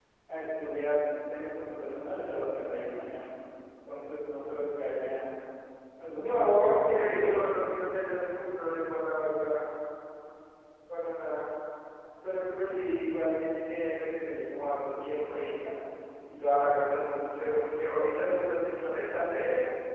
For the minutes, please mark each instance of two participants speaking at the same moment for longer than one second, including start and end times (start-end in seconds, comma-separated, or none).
6.0-7.5